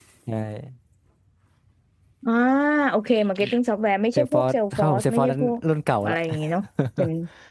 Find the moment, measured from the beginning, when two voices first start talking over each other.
4 s

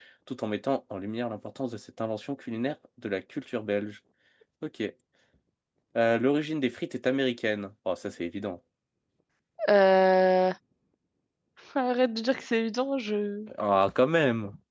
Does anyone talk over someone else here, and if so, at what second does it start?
none

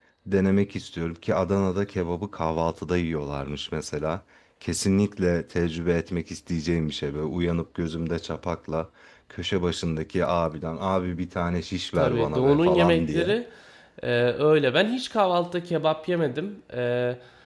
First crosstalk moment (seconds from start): 12 s

